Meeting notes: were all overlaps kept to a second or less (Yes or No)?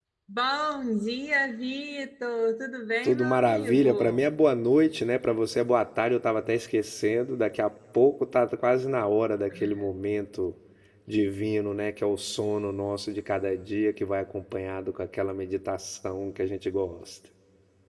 No